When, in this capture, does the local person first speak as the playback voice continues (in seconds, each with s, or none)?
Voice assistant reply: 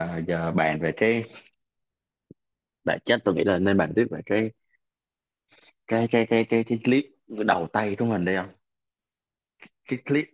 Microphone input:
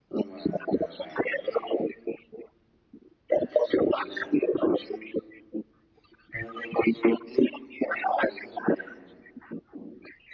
none